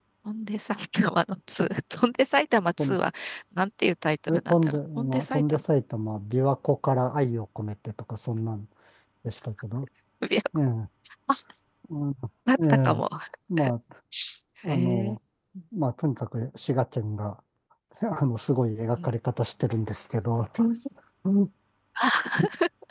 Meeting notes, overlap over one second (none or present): present